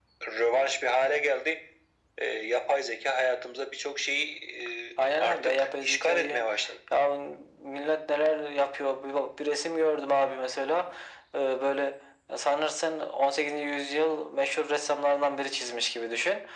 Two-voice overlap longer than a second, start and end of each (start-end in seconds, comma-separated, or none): 5.2-6.4